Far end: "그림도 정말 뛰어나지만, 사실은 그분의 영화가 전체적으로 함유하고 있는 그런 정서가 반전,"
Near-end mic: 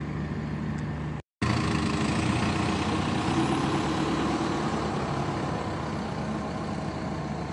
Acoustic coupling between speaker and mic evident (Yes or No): No